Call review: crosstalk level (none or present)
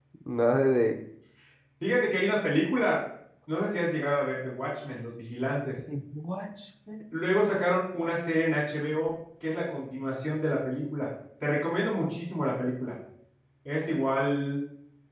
none